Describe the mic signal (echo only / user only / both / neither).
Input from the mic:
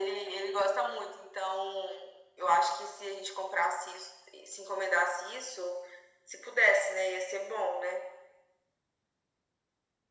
echo only